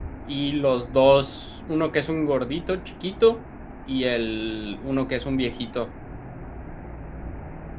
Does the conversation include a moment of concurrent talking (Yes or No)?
No